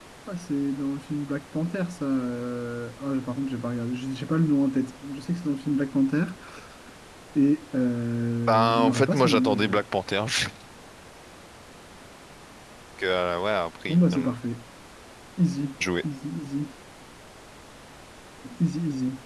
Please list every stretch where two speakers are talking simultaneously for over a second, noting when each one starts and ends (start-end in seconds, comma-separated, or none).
8.5-9.8